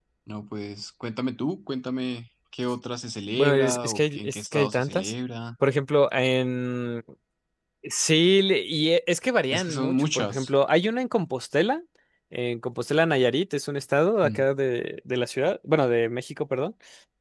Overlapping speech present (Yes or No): Yes